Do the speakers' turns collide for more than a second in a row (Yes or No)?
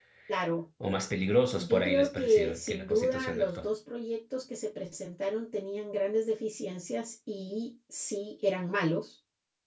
Yes